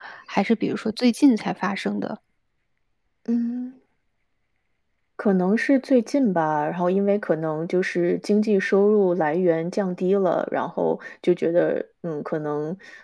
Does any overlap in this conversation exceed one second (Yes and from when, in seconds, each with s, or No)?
No